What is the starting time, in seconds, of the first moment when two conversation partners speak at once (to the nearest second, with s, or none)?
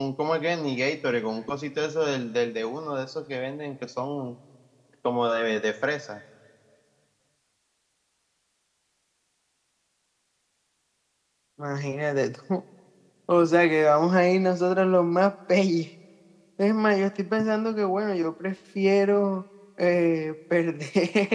none